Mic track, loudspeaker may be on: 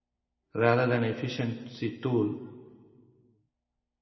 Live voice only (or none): rather than efficiency tool.